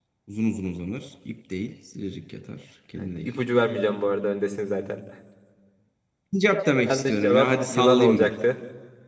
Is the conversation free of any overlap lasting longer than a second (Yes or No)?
No